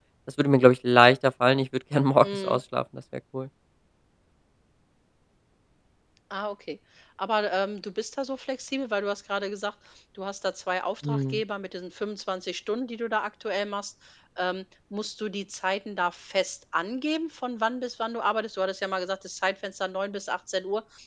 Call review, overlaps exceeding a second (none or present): none